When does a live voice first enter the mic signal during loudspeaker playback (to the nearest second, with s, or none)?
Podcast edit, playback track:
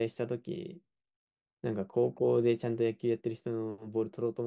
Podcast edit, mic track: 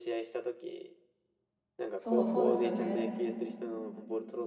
2 s